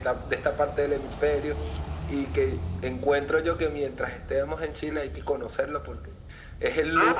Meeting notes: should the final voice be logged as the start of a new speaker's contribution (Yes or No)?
No